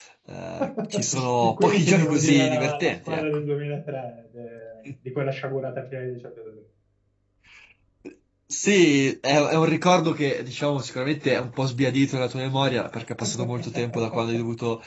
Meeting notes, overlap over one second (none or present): present